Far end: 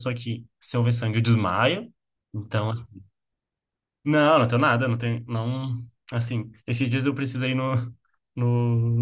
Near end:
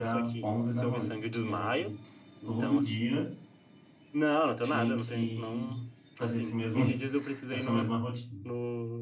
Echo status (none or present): present